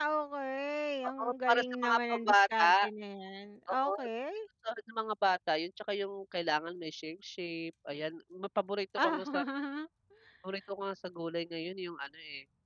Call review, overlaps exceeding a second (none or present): present